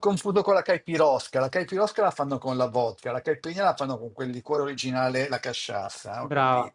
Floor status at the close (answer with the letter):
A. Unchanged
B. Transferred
B